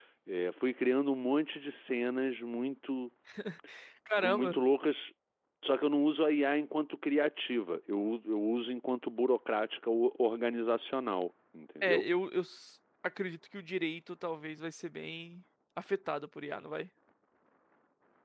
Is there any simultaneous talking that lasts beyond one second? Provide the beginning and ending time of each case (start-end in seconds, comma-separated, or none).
none